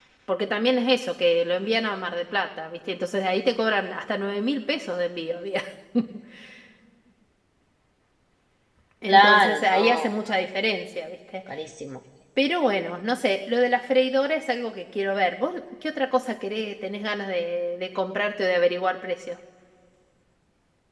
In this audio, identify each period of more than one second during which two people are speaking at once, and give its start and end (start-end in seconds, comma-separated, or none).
9.1-10.4